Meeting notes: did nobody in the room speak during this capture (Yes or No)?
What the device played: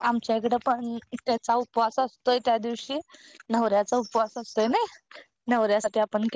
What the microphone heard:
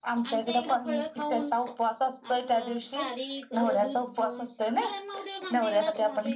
No